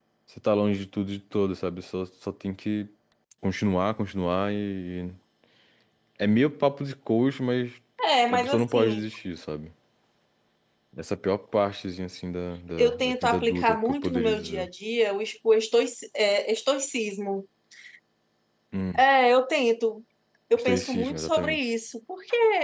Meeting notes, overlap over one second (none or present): present